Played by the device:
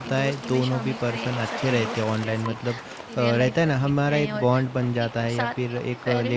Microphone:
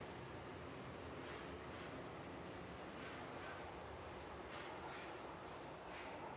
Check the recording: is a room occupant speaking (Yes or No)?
No